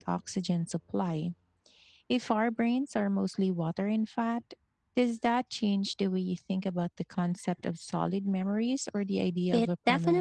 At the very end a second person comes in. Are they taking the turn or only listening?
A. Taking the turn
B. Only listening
A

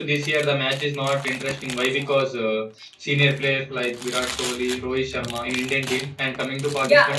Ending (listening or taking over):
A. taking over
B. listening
A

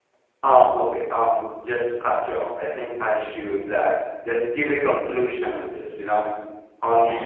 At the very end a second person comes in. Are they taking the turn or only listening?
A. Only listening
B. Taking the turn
A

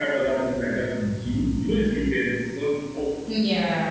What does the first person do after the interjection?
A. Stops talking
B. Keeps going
B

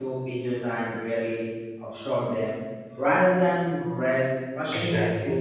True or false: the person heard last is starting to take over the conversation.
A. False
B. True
B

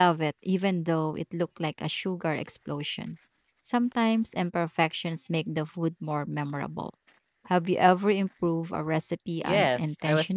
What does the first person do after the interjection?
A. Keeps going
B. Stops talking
B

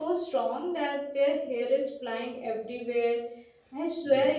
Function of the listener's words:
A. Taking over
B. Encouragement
B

